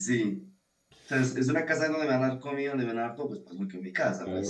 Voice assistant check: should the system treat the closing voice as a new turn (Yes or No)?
Yes